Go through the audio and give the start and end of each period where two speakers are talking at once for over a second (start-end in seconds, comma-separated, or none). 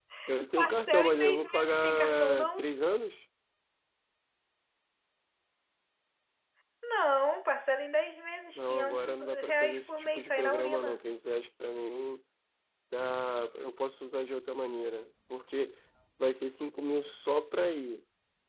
0.6-2.7, 8.6-11.0